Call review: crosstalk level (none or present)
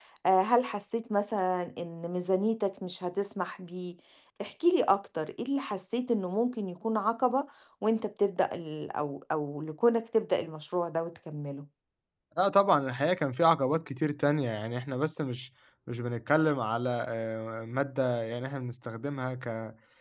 none